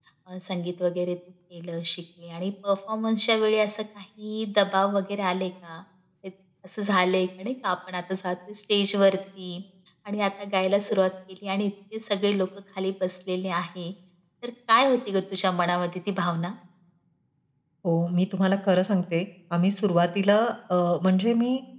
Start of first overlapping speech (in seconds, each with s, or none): none